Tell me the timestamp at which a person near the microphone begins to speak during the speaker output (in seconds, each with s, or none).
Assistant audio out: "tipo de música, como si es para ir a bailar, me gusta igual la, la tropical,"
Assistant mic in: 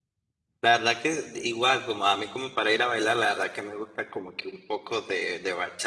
0.6 s